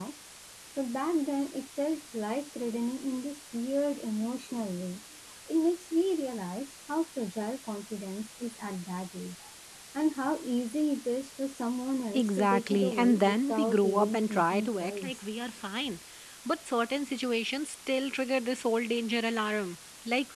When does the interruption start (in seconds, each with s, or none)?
12.1 s